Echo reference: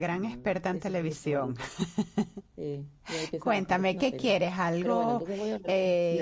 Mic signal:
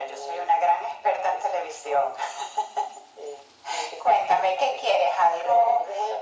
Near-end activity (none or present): none